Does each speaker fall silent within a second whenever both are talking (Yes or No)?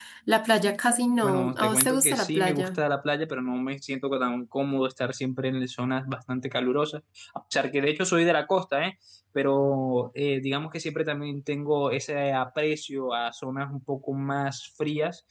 No